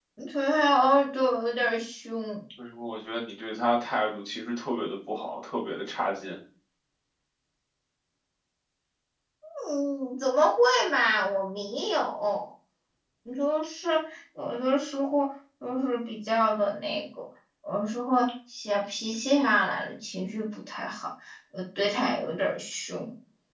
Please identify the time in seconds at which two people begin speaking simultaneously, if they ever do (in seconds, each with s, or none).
none